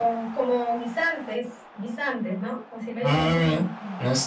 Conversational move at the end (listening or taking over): taking over